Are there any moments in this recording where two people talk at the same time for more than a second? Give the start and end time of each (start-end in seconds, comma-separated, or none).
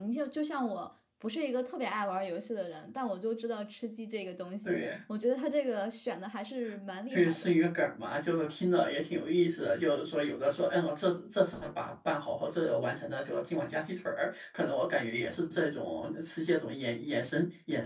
none